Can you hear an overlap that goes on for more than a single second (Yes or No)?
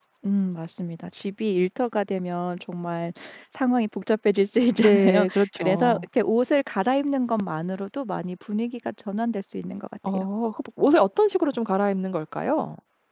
Yes